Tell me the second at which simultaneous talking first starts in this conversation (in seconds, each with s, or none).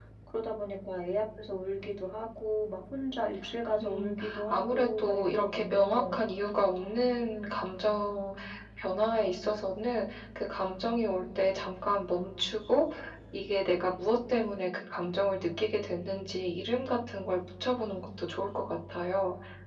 3.8 s